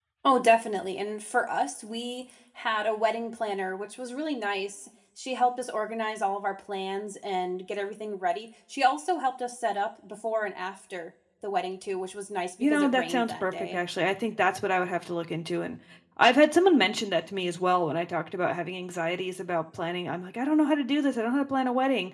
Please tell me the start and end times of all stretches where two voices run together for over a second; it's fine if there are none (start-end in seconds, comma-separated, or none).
12.6-13.8